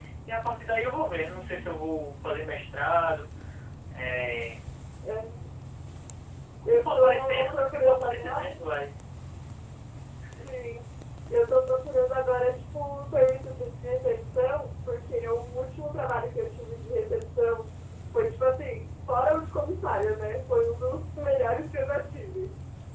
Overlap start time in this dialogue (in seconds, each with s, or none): 6.7 s